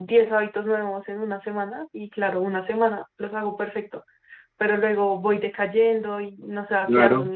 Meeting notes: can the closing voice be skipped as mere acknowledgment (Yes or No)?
No